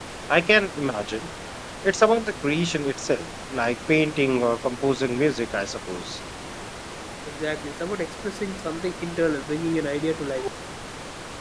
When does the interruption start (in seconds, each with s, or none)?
none